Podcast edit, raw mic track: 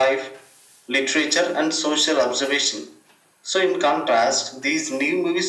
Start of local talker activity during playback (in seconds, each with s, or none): none